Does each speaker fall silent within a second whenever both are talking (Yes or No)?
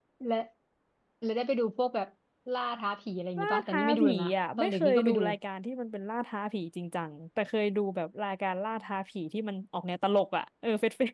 No